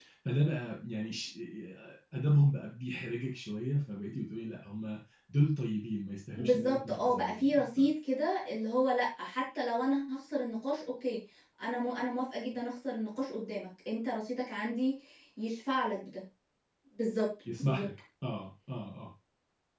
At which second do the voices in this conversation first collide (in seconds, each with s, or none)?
6.4 s